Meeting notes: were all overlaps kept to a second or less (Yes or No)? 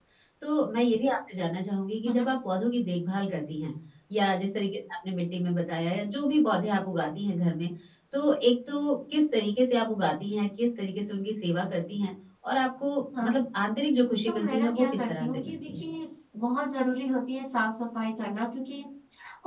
No